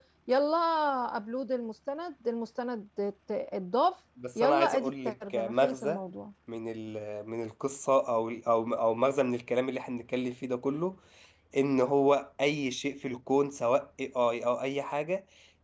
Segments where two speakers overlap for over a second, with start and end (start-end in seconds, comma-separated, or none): 4.3-6.0